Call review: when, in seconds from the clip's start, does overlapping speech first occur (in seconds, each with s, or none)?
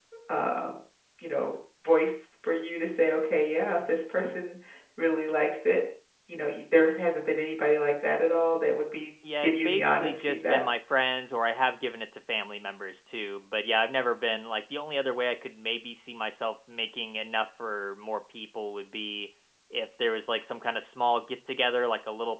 9.2 s